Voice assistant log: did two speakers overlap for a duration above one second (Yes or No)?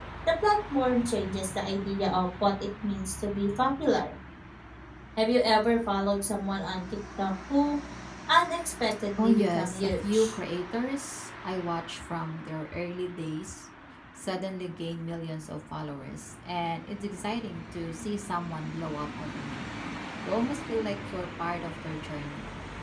Yes